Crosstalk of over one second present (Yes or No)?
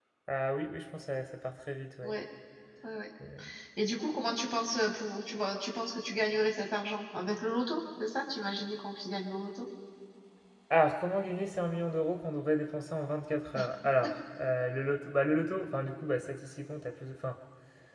No